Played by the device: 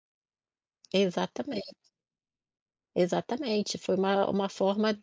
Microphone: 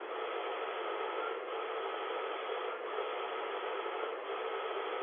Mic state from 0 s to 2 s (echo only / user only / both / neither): neither